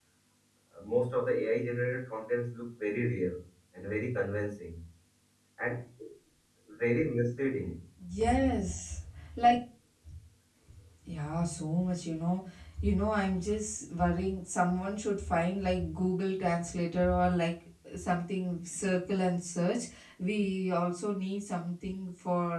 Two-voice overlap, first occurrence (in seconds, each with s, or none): none